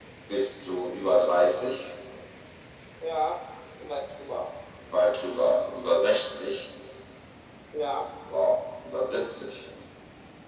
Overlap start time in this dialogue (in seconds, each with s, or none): none